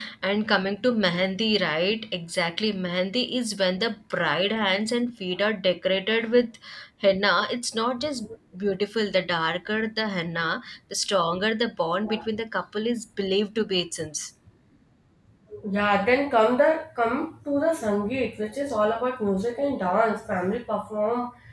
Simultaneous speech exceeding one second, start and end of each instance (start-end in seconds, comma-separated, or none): none